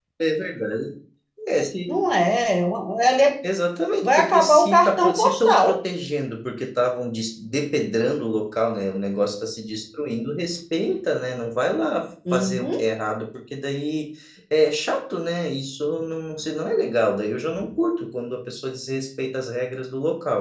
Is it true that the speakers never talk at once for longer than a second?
No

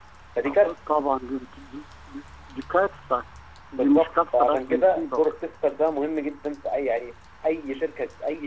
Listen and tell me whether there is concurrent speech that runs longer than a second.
Yes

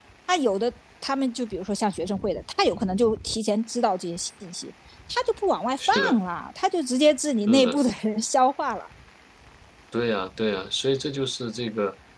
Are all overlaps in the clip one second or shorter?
Yes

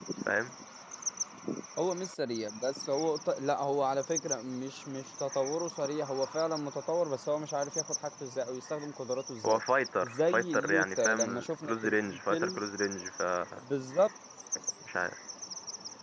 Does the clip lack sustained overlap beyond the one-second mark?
No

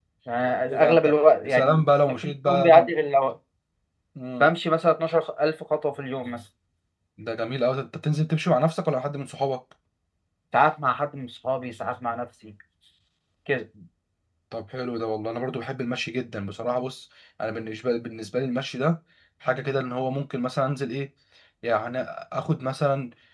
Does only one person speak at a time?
No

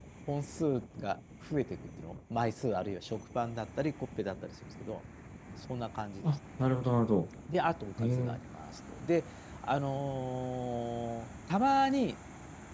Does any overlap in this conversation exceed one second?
No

